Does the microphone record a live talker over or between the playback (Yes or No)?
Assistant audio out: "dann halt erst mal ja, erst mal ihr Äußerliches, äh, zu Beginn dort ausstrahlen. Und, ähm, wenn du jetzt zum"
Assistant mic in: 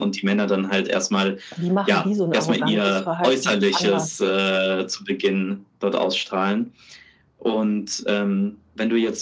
Yes